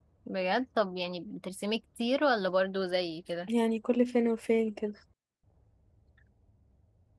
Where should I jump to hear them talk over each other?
none

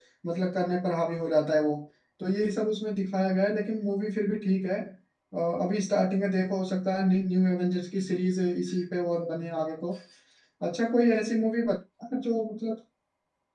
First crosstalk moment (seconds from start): none

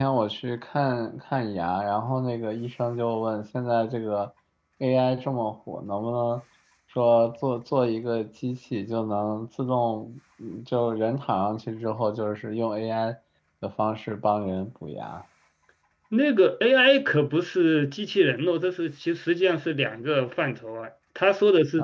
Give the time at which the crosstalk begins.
none

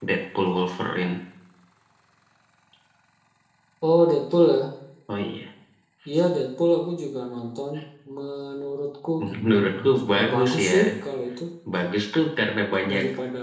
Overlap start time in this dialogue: 9.2 s

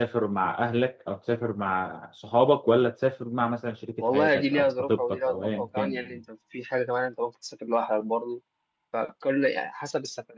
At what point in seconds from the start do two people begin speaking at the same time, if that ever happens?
4.0 s

